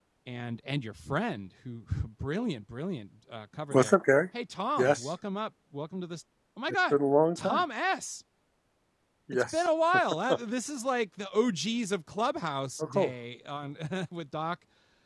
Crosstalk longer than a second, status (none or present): none